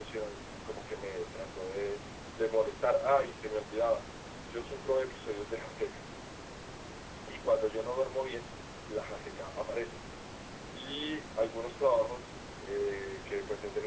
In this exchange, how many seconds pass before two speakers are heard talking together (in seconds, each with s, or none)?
none